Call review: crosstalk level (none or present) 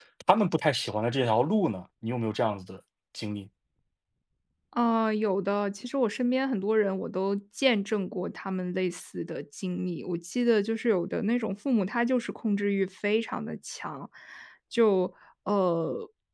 none